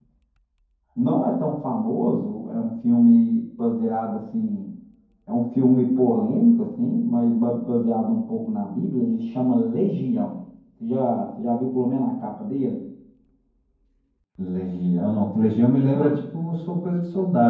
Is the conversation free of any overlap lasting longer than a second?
Yes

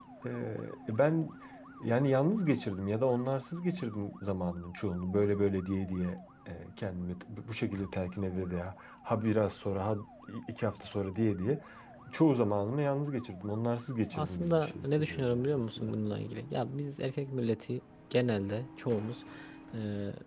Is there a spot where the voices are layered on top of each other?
Yes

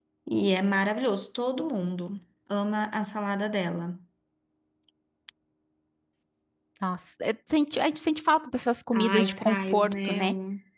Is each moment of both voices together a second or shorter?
No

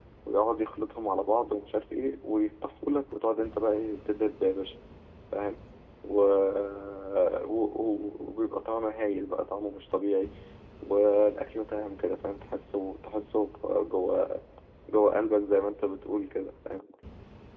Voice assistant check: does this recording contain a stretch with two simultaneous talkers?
No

